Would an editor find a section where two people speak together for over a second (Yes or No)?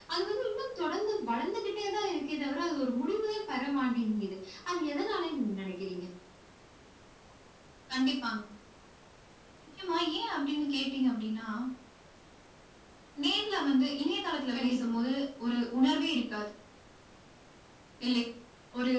No